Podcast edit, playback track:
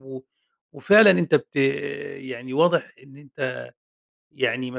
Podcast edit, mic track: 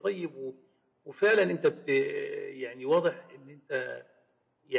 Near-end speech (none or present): none